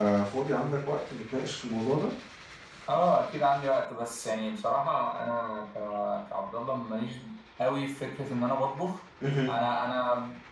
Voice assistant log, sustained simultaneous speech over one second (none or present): none